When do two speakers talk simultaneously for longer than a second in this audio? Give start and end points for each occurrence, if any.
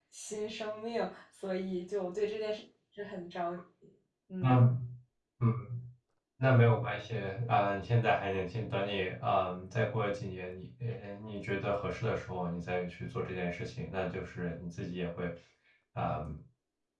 none

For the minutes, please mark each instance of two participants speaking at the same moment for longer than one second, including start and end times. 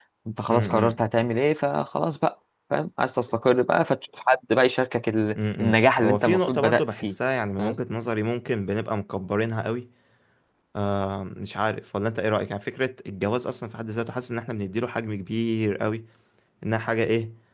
5.3-7.1

